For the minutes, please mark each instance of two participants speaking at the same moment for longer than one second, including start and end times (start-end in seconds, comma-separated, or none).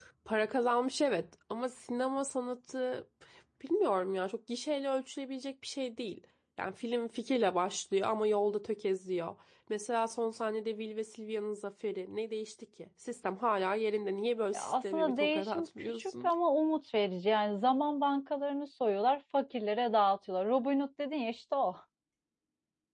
14.5-16.3